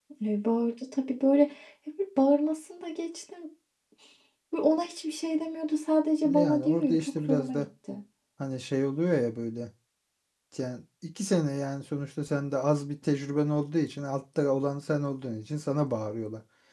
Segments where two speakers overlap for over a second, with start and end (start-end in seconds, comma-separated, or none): 6.3-7.7